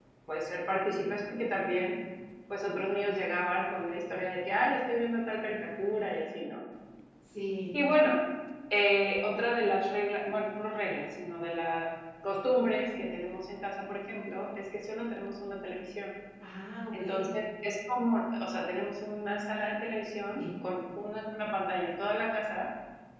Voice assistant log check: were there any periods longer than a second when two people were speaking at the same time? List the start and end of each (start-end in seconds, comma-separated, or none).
none